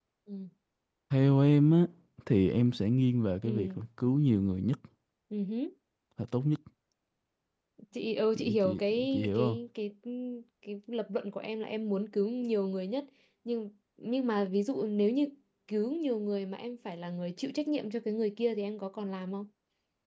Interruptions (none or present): present